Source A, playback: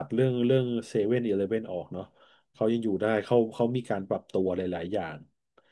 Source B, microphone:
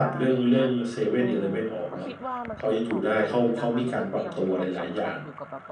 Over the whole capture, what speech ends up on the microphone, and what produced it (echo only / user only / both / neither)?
both